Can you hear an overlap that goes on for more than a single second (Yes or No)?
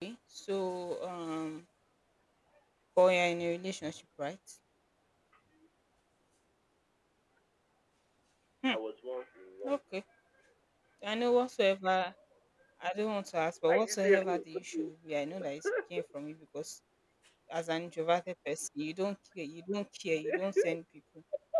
Yes